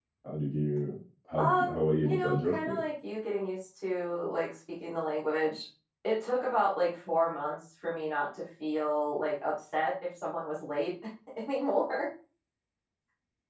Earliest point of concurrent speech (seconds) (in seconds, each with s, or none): 1.4 s